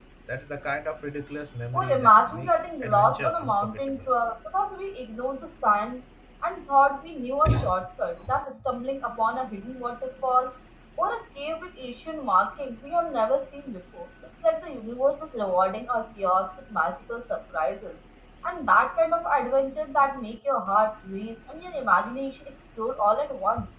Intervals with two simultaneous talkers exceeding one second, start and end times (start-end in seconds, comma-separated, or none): 1.7-4.1